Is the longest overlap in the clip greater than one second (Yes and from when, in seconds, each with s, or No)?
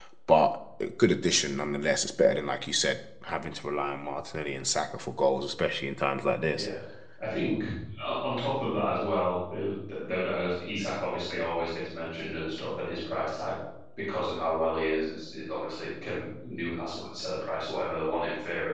No